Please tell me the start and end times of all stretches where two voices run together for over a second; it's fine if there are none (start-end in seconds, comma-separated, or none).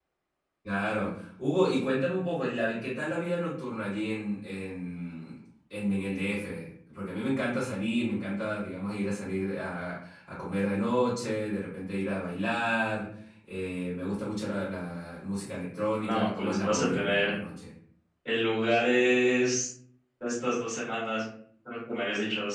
16.0-17.3